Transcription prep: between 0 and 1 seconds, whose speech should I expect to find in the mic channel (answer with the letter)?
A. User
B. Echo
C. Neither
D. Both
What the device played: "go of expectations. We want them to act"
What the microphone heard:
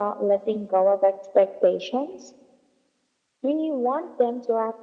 B